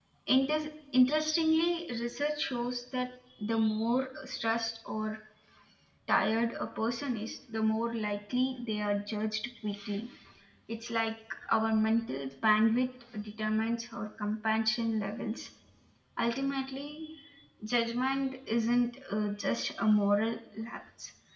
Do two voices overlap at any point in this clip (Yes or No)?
No